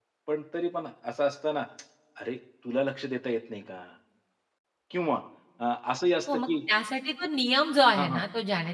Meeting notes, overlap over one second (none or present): none